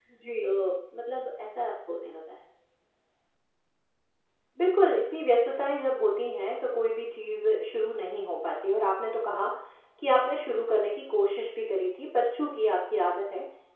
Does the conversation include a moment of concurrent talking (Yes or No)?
No